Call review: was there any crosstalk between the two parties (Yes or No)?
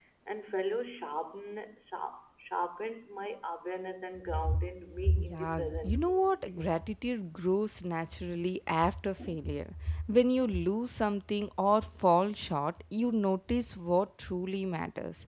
Yes